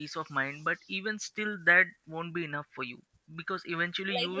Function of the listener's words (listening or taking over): taking over